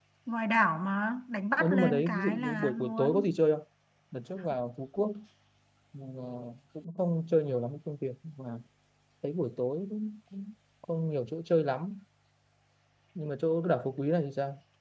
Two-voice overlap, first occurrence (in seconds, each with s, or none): 1.6 s